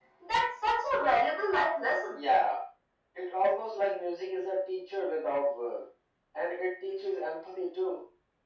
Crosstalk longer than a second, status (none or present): none